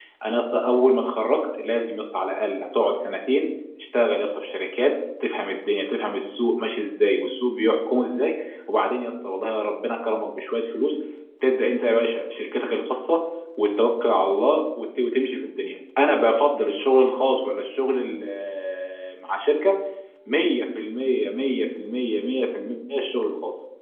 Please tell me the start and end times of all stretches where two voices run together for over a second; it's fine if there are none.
none

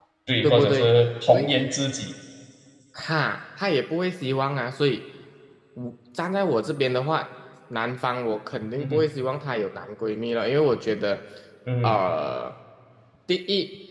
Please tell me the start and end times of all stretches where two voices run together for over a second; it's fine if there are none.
none

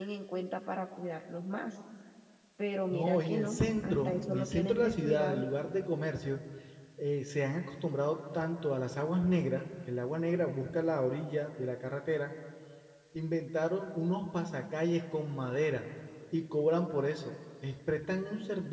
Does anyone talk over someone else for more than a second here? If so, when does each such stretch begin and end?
2.9-5.5

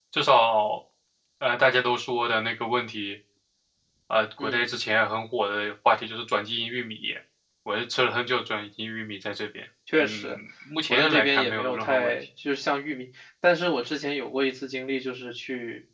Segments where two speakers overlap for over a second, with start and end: 10.9-12.1

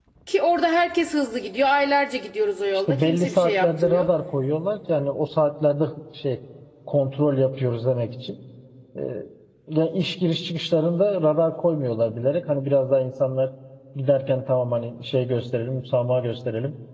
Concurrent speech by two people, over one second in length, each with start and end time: 2.9-4.1

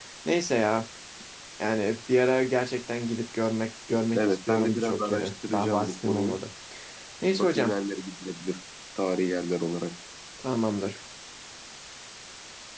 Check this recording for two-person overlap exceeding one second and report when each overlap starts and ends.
4.2-6.4

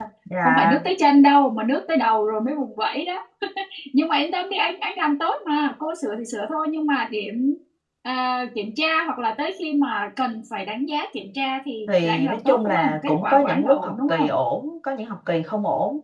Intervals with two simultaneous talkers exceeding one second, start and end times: 11.9-14.3

